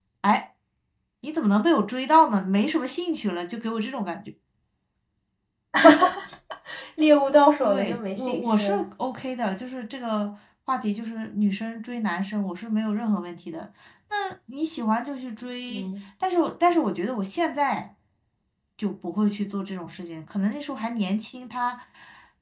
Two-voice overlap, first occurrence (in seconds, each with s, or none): 7.6 s